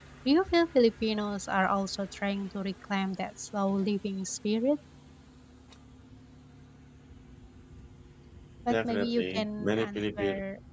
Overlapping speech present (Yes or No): Yes